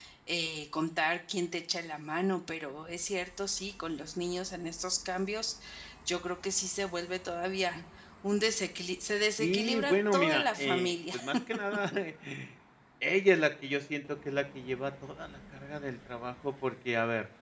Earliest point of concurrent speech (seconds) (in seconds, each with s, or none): 9.4 s